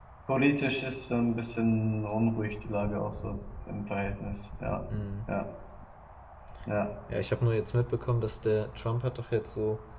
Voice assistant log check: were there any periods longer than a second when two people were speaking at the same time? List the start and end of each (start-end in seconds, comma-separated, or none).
none